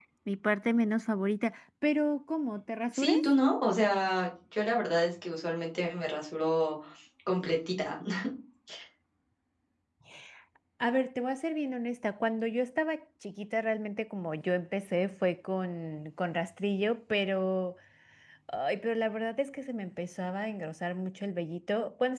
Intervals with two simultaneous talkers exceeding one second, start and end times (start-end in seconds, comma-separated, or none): none